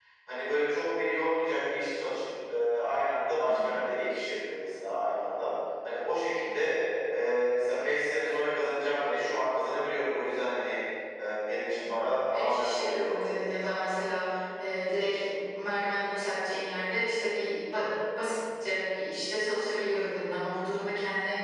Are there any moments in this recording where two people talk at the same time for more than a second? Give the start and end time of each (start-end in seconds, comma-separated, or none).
11.9-13.6